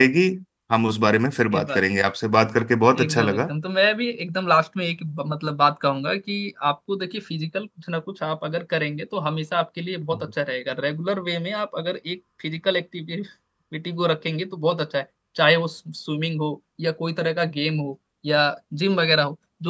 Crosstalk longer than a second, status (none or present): none